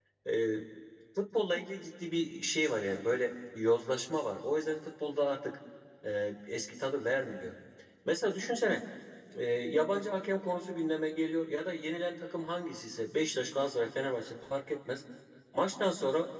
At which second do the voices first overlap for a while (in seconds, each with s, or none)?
none